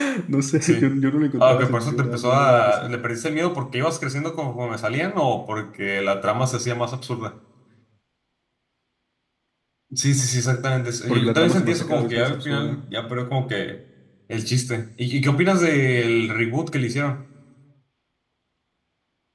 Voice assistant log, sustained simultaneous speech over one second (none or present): present